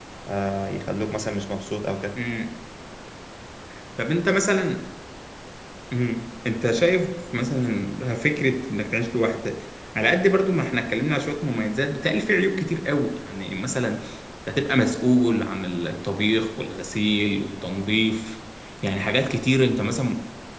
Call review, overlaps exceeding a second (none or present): none